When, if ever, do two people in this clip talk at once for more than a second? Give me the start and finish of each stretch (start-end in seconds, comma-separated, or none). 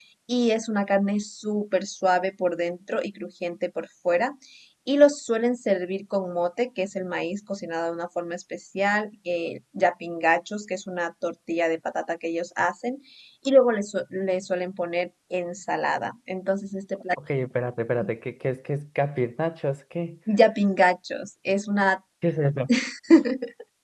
none